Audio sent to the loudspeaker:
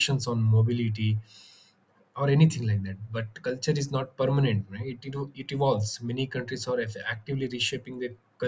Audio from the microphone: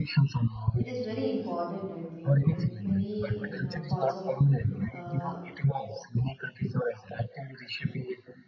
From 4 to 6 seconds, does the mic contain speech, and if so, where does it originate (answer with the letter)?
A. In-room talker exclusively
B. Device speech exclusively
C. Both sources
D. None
C